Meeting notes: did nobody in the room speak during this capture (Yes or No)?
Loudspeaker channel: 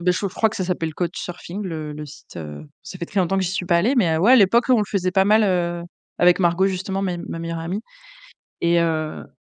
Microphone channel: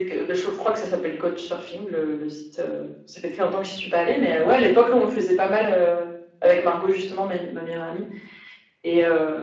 Yes